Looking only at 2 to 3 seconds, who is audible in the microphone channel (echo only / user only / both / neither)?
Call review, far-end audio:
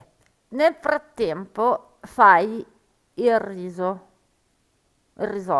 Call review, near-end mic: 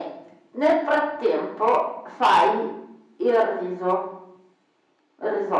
echo only